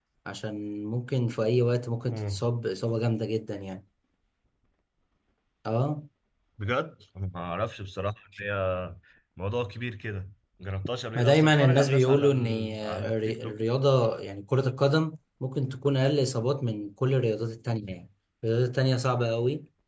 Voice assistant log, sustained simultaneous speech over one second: present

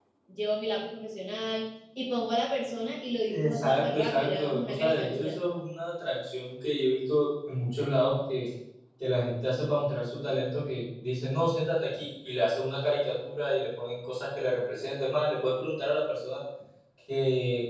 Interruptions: present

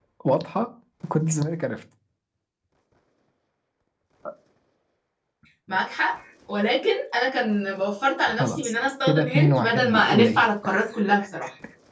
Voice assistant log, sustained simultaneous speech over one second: present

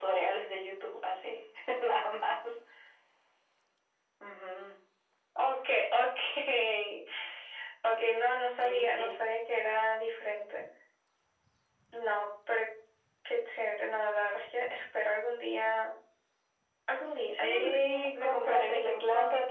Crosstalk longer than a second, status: present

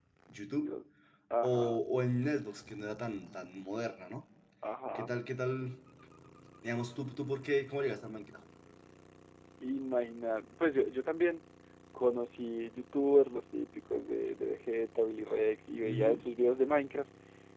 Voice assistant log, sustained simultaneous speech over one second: none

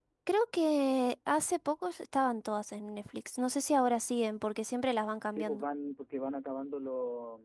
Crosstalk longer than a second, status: none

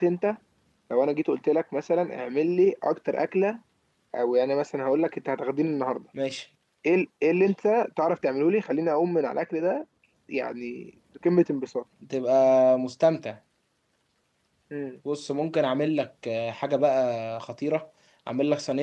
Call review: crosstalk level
none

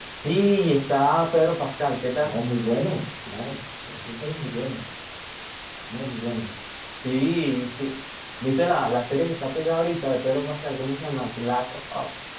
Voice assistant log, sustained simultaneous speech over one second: none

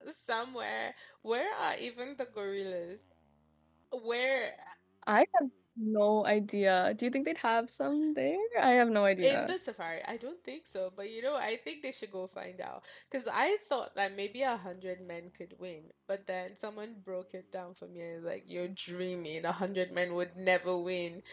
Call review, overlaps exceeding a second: none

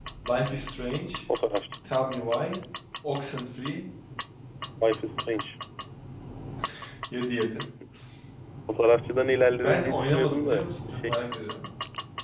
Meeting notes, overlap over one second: present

